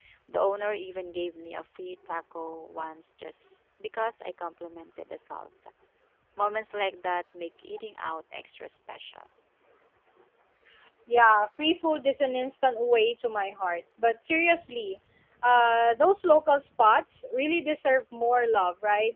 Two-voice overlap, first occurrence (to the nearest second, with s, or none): none